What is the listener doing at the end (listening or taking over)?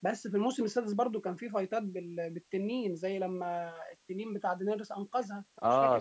taking over